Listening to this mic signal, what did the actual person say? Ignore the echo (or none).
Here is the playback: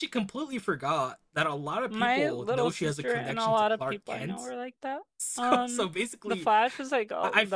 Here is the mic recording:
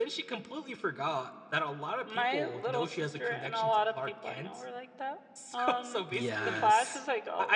yes,